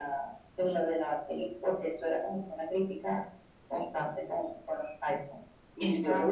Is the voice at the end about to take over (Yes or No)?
No